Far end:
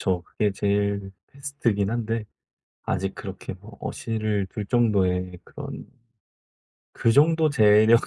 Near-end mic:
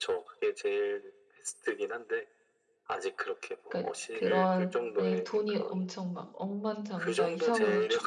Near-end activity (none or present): present